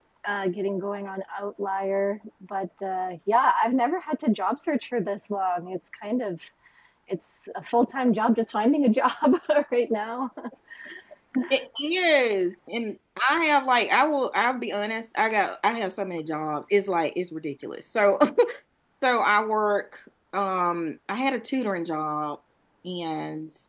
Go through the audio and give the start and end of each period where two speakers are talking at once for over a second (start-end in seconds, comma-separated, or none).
none